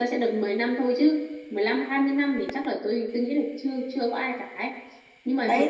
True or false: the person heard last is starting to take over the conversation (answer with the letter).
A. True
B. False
A